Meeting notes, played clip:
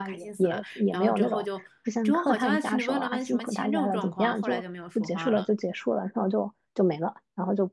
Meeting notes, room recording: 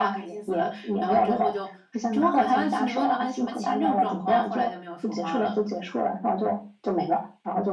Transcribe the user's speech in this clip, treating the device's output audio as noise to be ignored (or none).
none